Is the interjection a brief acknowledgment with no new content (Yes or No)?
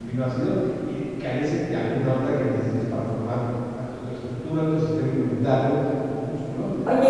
No